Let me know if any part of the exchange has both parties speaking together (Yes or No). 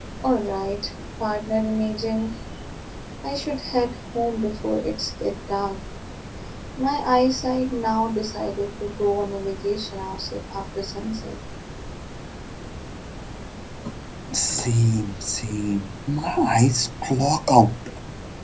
No